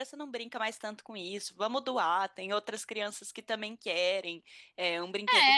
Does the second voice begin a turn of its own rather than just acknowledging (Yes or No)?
Yes